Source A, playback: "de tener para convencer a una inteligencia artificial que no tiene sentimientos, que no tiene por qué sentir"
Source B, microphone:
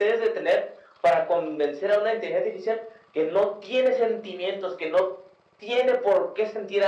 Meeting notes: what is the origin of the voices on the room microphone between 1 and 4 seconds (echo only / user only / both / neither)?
echo only